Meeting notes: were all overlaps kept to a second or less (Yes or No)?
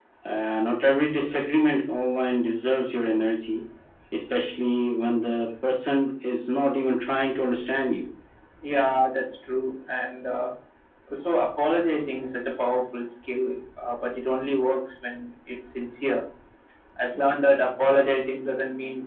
Yes